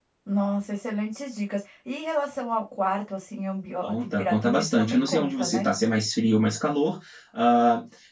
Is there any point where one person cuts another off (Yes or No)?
Yes